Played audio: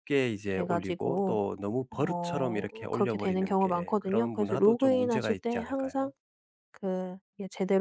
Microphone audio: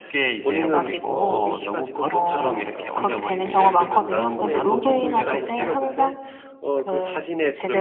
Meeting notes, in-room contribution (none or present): present